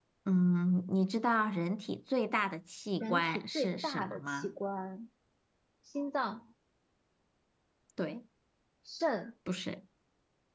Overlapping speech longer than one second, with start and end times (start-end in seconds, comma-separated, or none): 3.0-4.5